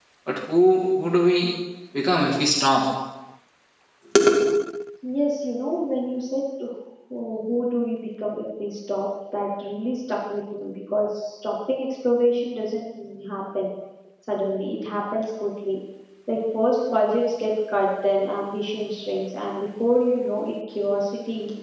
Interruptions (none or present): none